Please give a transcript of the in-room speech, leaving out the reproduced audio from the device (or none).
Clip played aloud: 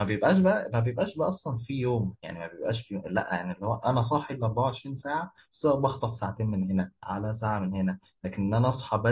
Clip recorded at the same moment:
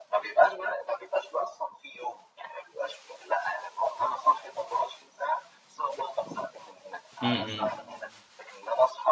امم امم